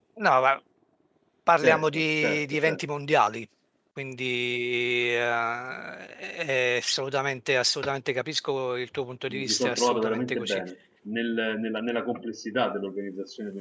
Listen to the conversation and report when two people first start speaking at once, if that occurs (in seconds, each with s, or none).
1.6 s